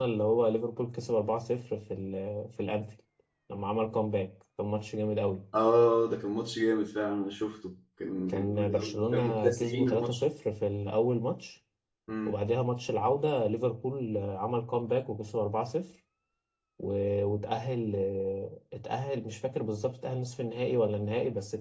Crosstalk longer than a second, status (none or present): present